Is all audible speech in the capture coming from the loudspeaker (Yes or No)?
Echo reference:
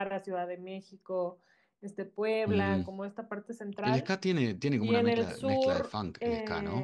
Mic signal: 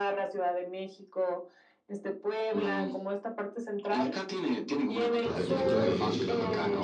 No